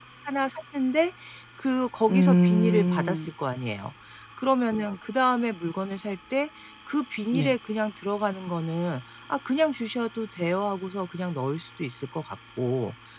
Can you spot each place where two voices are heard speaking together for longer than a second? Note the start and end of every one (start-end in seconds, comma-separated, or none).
2.1-3.3